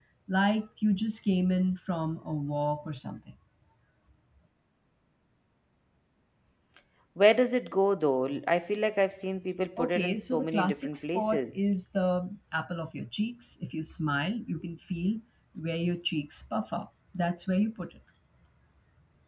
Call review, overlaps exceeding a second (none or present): present